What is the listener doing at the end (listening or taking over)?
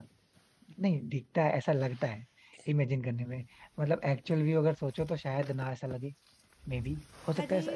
taking over